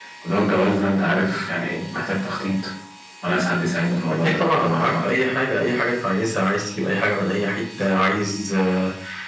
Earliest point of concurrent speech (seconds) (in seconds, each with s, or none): 4.1 s